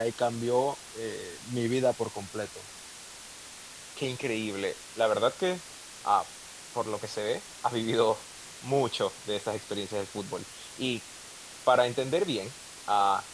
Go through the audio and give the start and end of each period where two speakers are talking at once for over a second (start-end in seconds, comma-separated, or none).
none